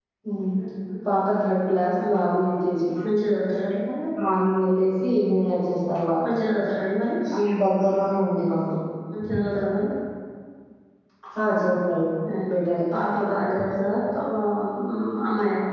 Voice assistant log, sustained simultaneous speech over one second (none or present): none